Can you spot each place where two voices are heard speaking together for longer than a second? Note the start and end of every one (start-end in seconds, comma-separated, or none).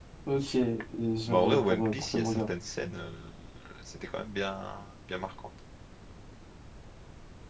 1.3-2.5